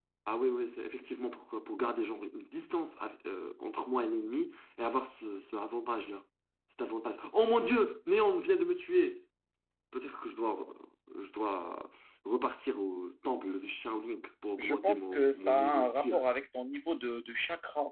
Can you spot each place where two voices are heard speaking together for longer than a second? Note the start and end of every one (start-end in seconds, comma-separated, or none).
14.6-16.2